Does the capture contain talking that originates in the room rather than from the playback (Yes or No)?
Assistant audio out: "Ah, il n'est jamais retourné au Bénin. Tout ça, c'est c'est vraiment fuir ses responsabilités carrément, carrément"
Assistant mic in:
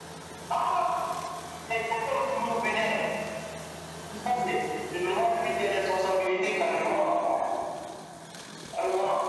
No